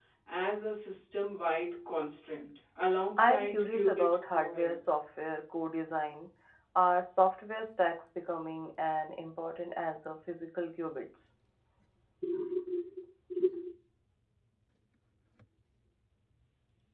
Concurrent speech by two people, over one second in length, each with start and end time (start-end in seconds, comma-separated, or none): 3.2-4.8